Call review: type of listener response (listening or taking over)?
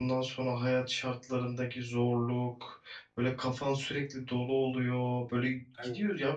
listening